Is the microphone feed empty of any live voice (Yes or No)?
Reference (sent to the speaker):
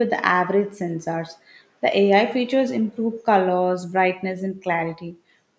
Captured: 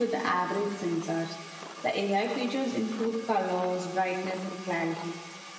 Yes